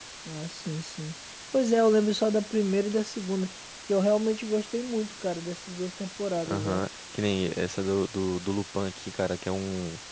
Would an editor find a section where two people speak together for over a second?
No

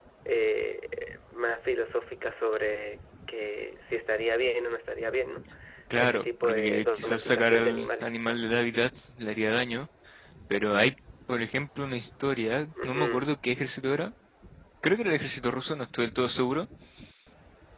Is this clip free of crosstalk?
No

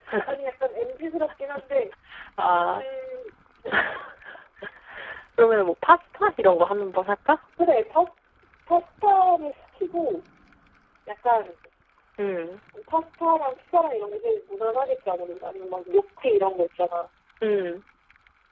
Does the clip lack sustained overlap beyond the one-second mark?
Yes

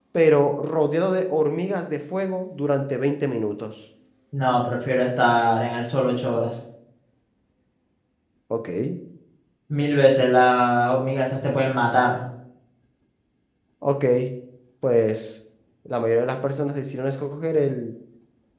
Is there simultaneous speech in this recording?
No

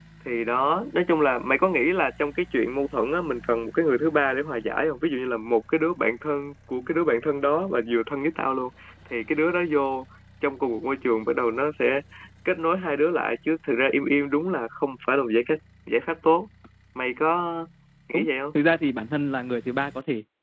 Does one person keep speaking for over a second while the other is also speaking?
No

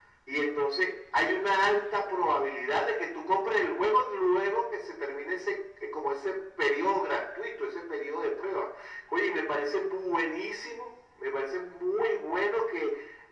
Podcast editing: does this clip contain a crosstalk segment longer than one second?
No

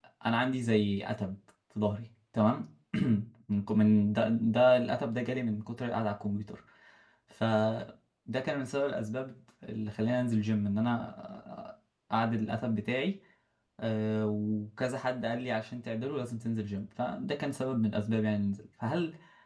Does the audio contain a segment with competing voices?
No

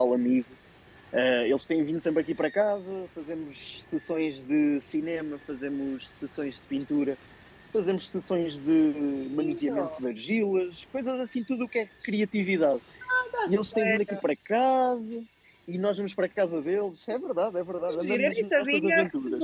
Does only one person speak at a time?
No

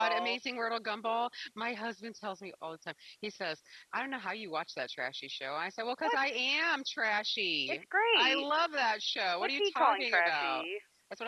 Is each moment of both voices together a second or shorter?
No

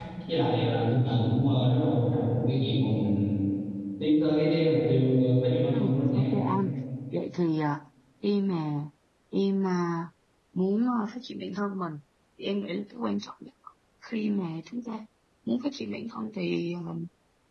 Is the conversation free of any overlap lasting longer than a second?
Yes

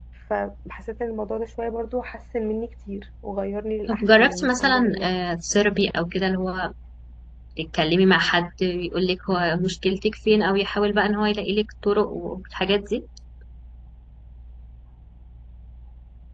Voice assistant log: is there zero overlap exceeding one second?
No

